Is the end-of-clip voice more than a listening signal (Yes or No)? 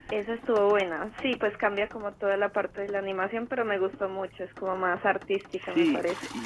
Yes